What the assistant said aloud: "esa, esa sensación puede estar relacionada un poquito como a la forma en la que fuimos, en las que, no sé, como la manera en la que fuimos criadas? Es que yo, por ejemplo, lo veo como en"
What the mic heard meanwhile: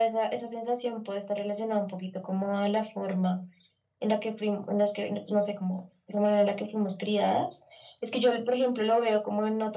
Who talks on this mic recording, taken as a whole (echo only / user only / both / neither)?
echo only